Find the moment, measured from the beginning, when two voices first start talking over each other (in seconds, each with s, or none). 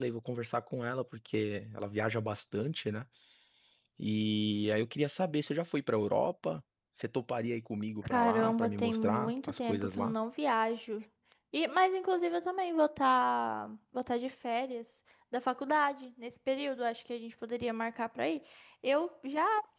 8.0 s